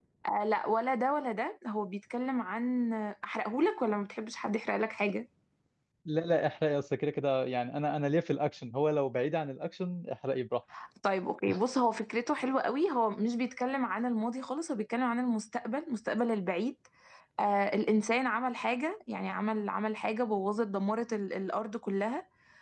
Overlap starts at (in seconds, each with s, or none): none